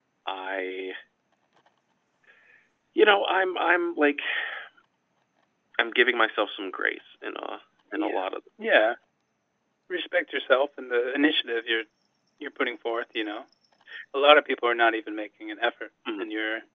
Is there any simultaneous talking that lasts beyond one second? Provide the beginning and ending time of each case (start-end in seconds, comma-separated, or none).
none